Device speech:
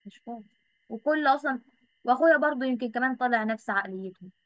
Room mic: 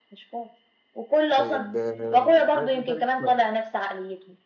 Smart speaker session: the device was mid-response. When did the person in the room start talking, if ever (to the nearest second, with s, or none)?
1 s